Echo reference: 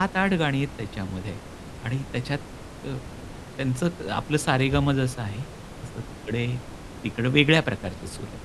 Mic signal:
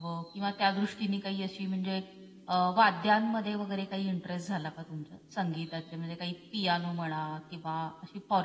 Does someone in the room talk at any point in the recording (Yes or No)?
Yes